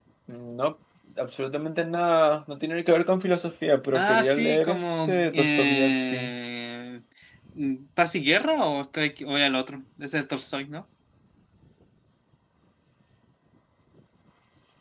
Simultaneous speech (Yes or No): Yes